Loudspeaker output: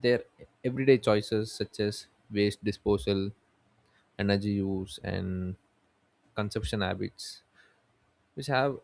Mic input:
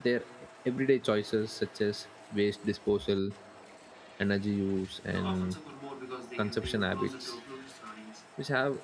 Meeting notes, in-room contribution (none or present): present